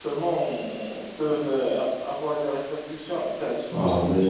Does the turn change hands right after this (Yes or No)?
Yes